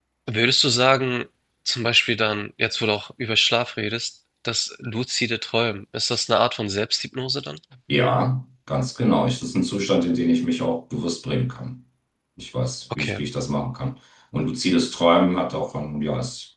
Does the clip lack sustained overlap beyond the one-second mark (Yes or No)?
Yes